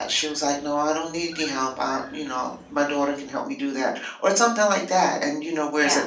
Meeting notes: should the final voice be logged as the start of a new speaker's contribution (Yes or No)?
No